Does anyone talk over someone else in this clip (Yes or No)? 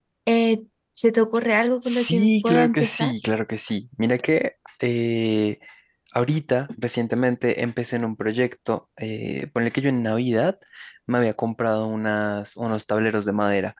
Yes